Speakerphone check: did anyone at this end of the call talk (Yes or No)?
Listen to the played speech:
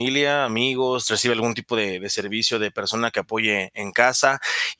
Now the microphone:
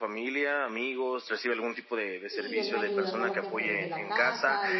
Yes